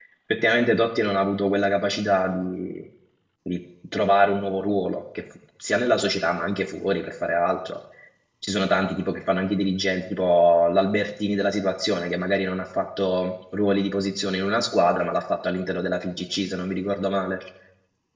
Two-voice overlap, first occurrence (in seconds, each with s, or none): none